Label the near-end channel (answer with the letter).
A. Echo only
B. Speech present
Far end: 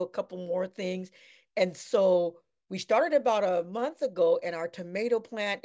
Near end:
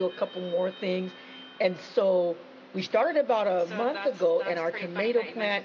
B